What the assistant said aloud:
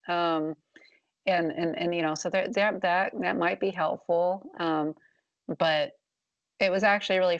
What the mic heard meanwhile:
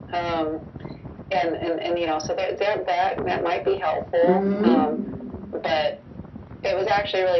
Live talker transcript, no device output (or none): hmm?